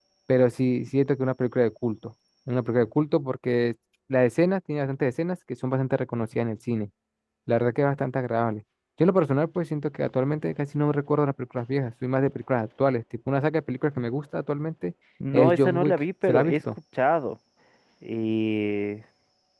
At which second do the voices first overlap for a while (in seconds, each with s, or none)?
15.3 s